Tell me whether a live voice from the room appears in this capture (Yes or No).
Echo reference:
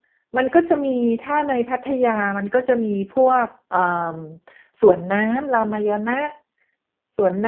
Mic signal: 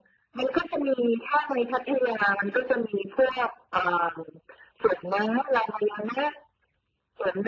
No